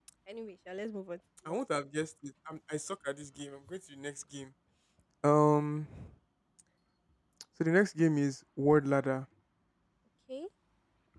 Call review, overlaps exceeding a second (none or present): none